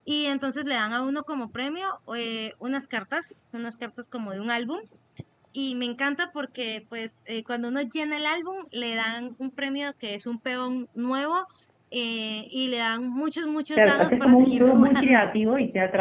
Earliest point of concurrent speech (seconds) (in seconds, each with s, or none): 13.8 s